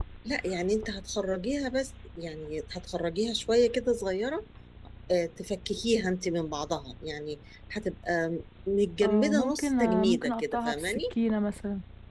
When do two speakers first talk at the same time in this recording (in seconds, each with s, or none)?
9.0 s